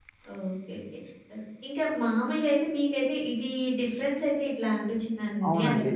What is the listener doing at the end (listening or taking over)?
listening